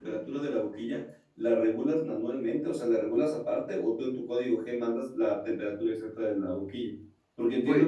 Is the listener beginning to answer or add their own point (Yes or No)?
No